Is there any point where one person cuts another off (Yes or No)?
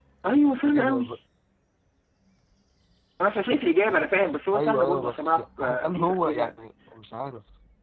Yes